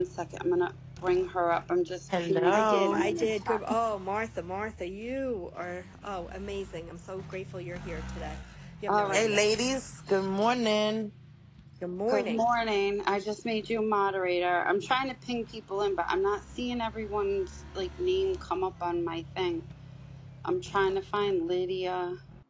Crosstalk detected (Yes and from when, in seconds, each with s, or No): Yes, from 2.2 s